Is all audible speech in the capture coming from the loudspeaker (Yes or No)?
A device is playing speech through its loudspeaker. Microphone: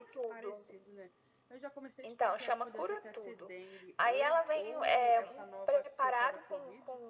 No